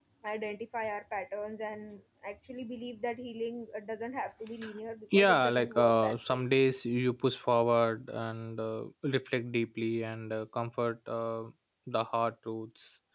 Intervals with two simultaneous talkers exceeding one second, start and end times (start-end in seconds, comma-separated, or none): 5.1-6.4